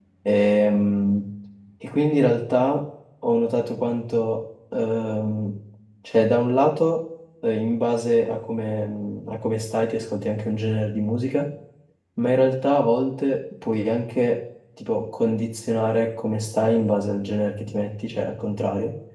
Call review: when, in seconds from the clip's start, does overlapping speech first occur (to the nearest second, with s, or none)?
none